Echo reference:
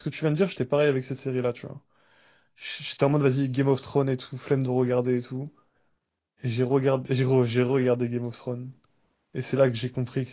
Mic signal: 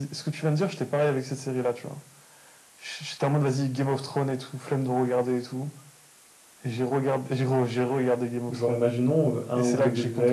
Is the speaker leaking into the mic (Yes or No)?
Yes